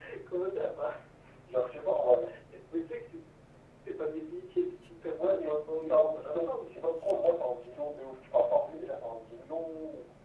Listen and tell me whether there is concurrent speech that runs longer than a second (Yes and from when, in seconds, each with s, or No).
Yes, from 5.2 s